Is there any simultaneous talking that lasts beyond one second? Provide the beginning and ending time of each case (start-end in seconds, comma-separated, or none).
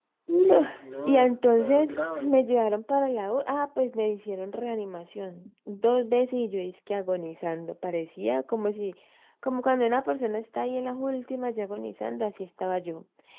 1.1-2.4